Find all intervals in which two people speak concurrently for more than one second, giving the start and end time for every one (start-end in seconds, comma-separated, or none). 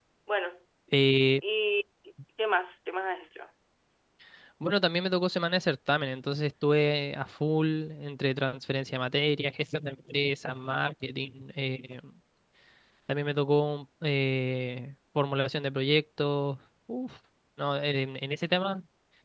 none